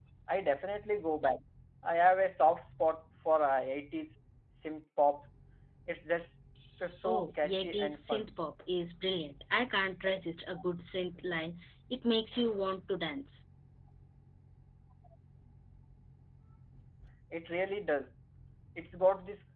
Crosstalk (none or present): present